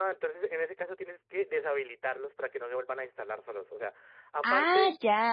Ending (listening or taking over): listening